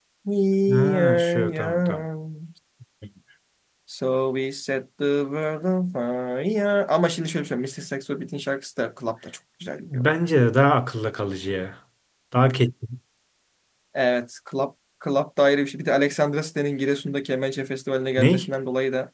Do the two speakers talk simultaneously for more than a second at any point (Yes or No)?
Yes